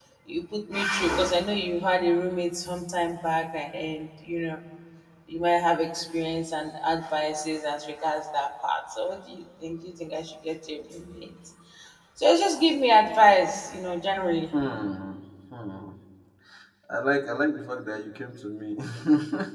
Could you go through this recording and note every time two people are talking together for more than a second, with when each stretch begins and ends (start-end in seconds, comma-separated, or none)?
none